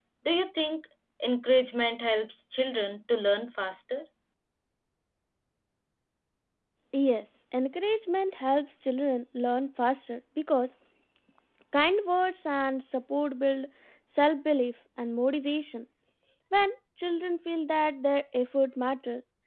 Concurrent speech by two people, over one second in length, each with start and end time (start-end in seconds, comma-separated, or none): none